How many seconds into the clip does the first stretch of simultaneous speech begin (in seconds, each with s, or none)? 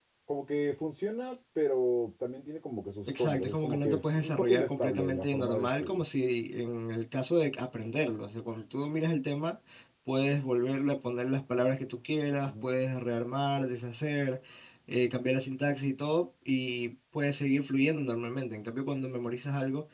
3.1 s